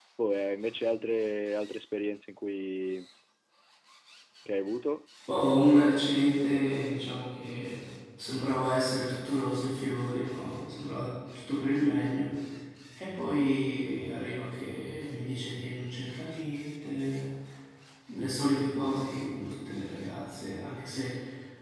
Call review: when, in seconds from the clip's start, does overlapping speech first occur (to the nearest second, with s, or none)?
none